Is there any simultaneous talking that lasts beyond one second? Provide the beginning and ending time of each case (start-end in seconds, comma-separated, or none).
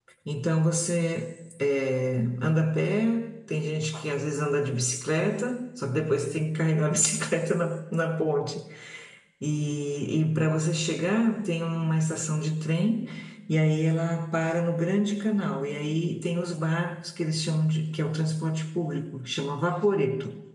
none